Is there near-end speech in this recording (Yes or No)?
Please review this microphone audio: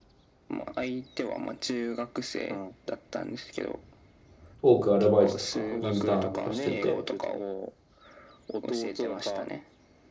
Yes